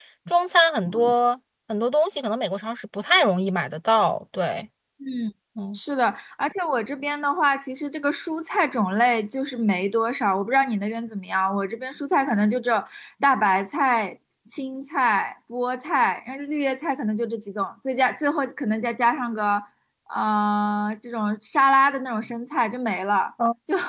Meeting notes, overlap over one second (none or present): none